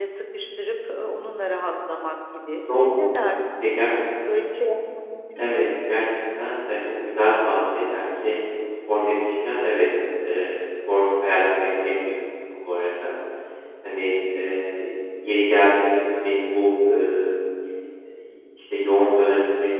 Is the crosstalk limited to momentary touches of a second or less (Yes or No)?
Yes